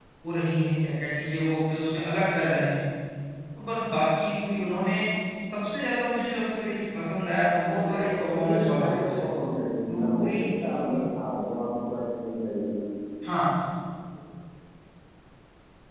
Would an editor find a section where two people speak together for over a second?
Yes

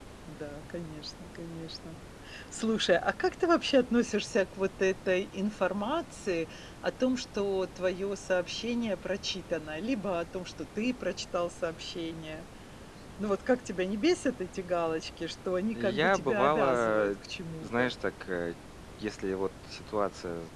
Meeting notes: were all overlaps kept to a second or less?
No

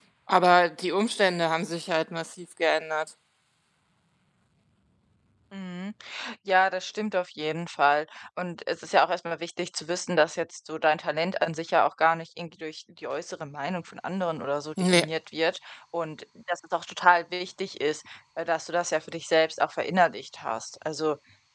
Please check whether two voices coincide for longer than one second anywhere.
No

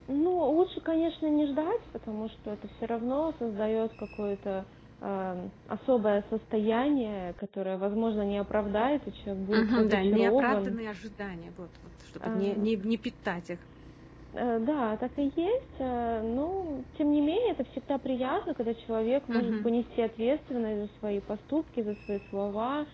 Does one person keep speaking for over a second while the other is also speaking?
Yes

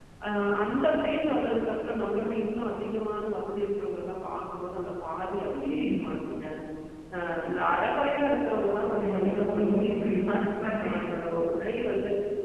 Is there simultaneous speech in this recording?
Yes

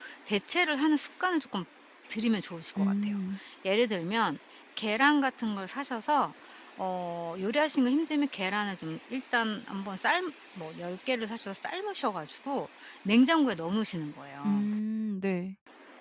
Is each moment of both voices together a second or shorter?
Yes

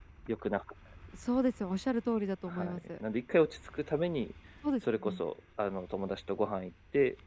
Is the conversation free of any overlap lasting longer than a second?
Yes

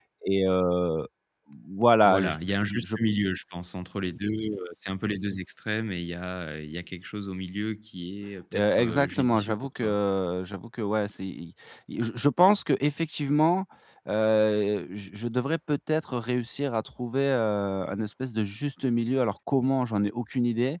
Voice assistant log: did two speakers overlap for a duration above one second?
Yes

